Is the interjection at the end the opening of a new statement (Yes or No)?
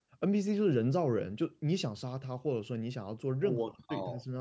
No